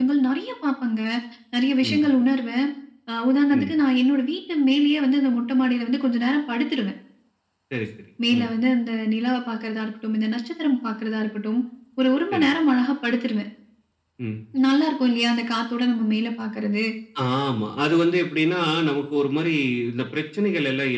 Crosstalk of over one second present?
No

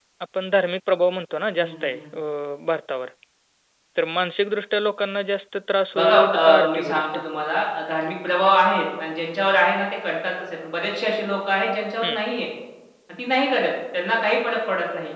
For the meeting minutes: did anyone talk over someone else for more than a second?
Yes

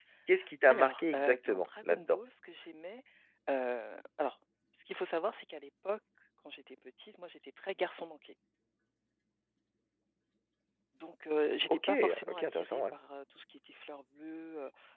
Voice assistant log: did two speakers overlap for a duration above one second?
Yes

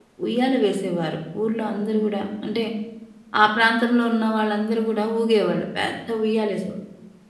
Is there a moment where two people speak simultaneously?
No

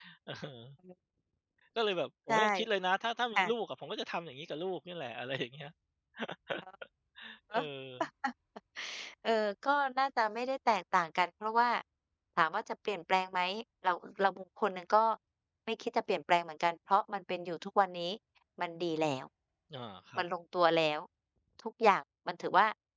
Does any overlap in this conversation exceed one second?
No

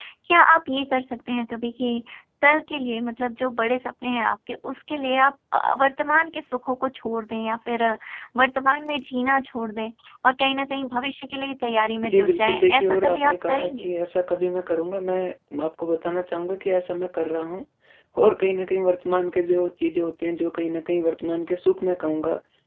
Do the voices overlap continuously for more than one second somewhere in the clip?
Yes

